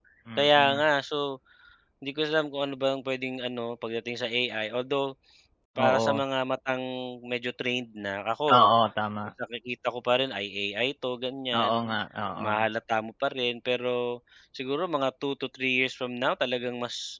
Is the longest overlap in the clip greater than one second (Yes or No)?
No